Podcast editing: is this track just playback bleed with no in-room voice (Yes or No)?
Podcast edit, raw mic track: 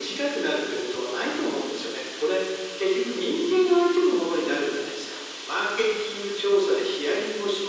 Yes